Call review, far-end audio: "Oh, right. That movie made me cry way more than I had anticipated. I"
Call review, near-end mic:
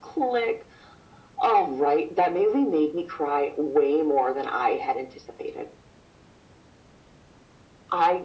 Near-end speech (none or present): none